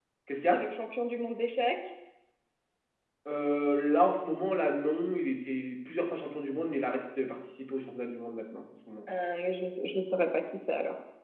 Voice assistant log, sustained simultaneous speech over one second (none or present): none